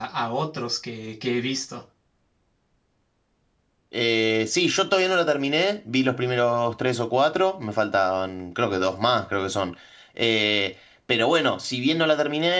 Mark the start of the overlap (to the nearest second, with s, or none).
none